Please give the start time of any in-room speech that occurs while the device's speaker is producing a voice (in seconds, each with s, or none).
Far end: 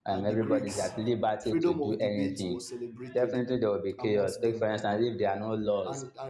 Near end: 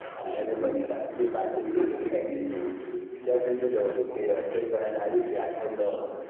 none